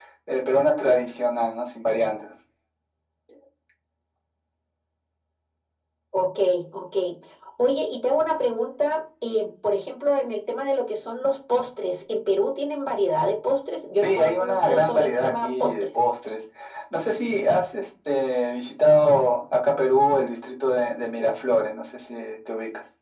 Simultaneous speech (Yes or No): Yes